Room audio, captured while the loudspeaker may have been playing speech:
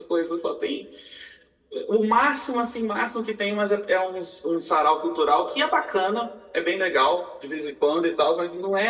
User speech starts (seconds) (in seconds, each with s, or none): none